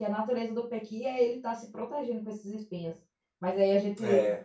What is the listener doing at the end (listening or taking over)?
listening